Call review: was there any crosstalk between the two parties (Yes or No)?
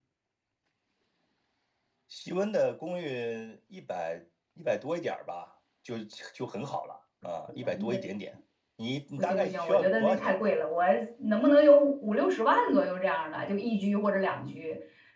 Yes